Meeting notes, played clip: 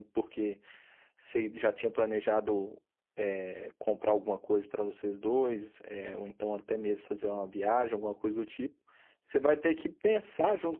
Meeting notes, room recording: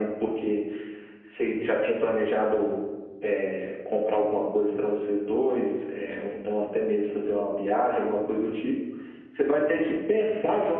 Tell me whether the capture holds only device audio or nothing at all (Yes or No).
Yes